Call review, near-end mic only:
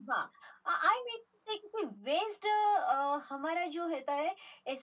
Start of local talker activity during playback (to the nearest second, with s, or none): none